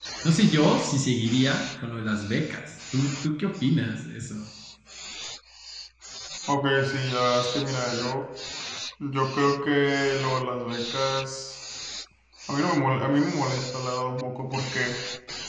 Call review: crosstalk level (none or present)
none